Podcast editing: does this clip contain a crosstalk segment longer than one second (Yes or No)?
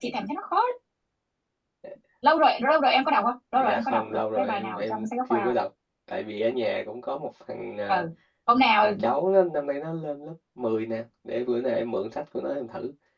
Yes